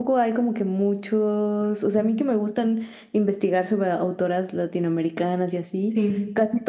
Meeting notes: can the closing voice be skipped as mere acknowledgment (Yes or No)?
Yes